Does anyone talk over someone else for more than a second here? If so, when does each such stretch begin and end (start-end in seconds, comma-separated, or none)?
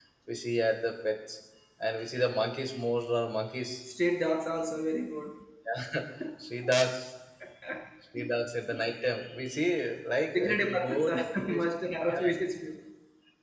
10.3-11.6